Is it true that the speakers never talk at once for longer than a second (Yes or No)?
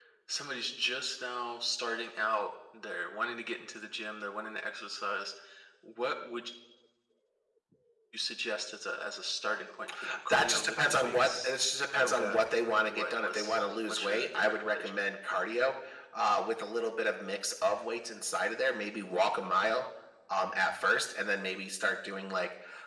No